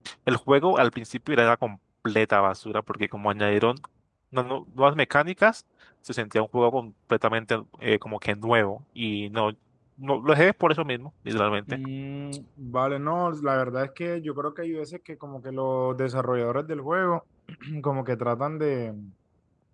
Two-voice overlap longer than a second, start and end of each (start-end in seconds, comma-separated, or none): none